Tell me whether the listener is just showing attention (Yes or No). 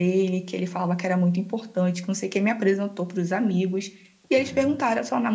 Yes